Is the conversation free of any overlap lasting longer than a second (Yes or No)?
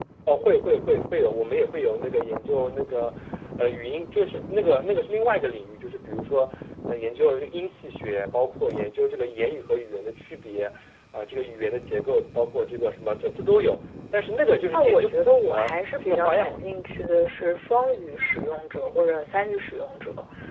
No